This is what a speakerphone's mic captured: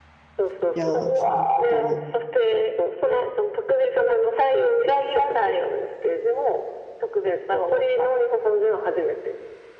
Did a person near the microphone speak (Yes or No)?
Yes